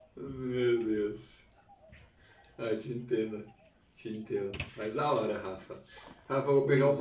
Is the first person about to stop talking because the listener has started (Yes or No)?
No